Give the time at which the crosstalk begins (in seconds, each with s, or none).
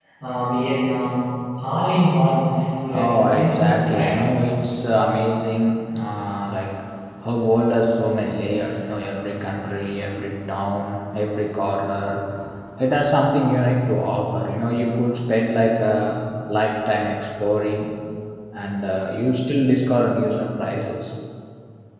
2.8 s